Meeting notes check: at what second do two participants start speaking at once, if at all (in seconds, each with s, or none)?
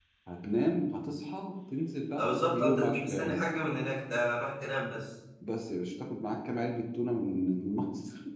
2.2 s